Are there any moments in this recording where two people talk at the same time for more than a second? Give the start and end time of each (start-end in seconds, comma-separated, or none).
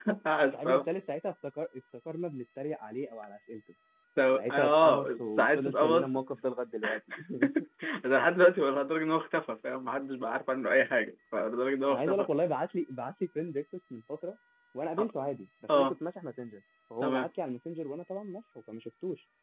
4.4-6.2